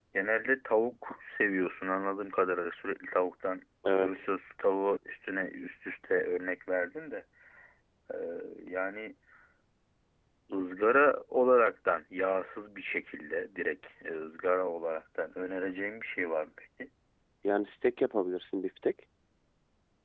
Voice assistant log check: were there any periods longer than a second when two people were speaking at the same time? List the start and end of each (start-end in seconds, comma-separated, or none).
none